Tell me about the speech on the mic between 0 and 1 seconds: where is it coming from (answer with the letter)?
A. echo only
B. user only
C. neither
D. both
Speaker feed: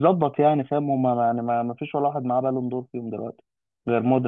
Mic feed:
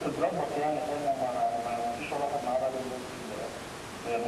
A